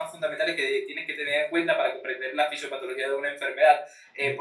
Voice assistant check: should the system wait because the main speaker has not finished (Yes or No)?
Yes